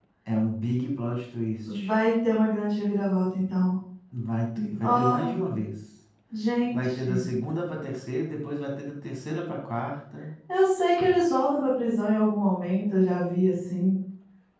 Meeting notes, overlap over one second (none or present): none